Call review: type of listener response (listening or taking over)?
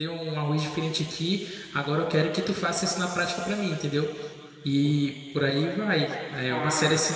listening